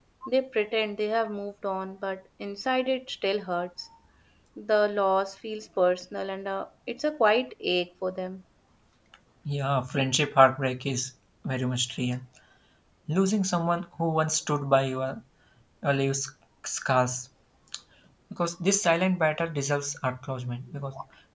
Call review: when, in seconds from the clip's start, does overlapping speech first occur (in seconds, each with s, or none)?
none